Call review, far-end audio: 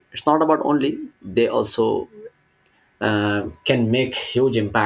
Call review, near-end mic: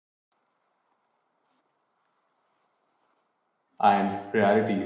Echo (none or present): none